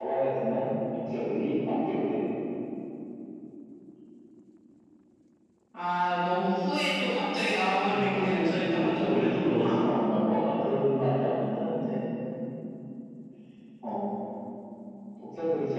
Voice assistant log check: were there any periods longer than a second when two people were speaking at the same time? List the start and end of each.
7.9-9.8

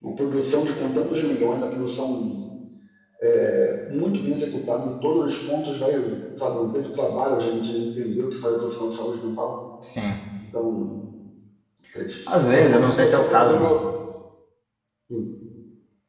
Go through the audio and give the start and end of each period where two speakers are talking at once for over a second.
12.3-13.8

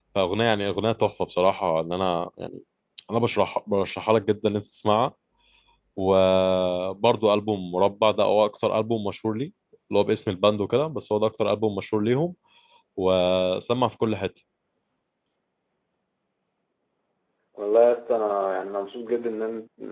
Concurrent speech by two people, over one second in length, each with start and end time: none

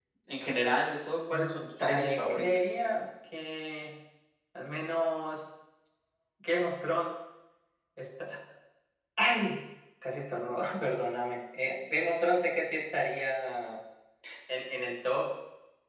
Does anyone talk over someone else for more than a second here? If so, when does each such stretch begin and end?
1.3-2.7

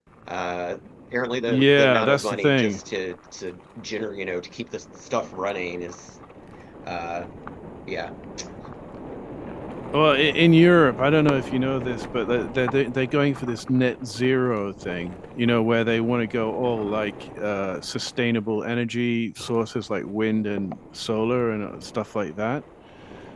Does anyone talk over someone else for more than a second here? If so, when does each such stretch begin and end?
1.5-2.8

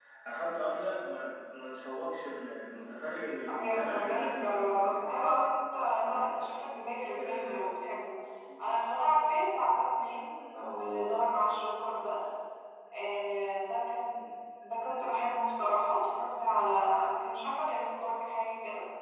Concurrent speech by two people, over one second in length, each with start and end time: 3.5-5.0

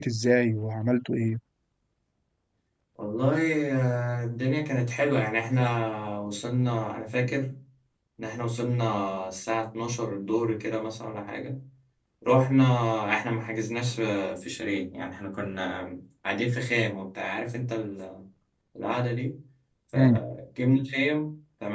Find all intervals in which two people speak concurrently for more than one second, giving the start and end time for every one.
none

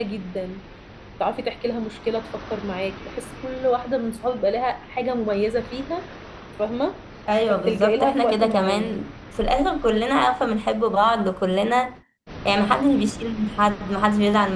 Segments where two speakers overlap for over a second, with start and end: 7.5-9.0

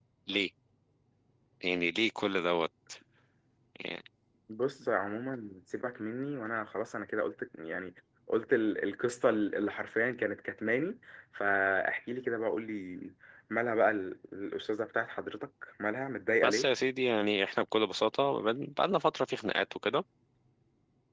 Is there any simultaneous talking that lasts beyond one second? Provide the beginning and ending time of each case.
none

